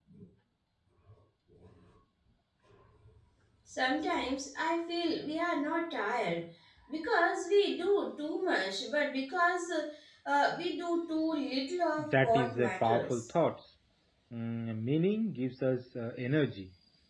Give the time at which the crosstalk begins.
12.0 s

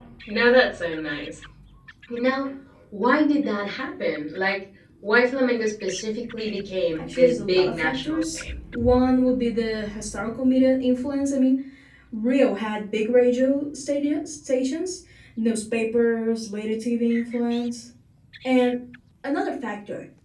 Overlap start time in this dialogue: 7.0 s

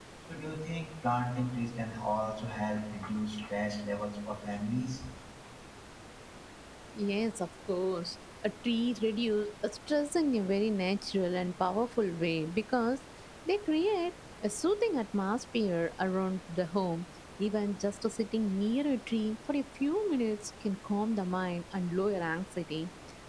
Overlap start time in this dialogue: none

